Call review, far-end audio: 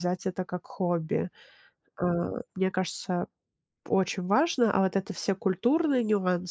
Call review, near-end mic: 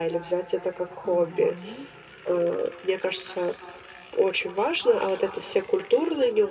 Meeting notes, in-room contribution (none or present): present